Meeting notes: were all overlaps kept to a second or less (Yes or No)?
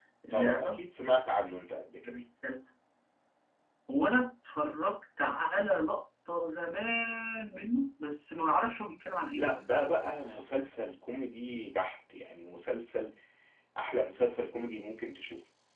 Yes